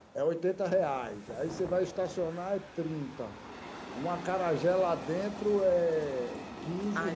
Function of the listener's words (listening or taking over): taking over